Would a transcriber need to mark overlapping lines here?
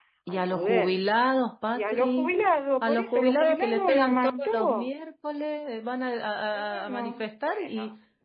Yes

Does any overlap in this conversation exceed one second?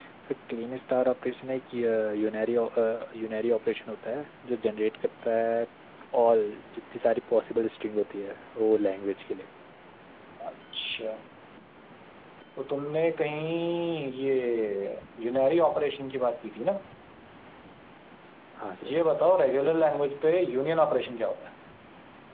No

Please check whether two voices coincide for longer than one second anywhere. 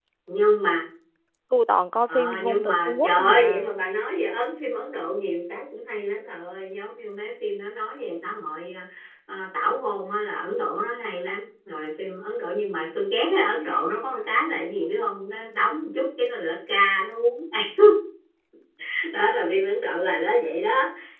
Yes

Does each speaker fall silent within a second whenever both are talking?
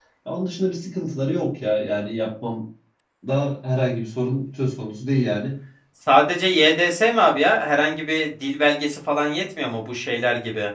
Yes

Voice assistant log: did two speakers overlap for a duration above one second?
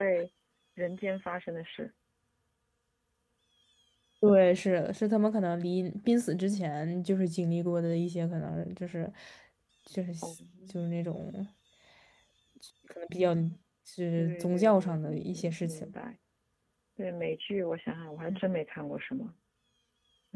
Yes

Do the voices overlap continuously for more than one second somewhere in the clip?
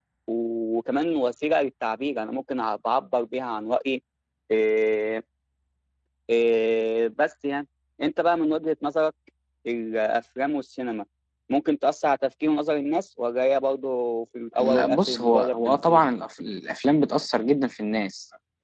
Yes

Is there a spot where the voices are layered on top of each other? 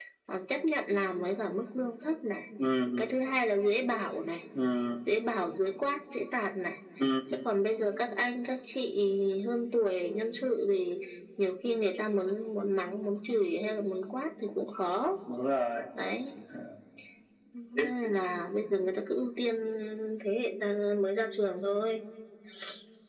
No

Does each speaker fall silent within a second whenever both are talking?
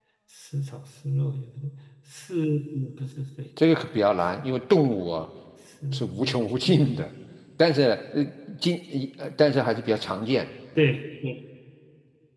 Yes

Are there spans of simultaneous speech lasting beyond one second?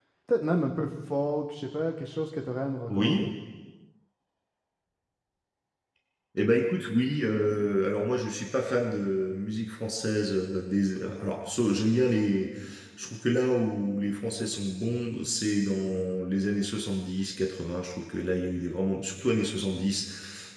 No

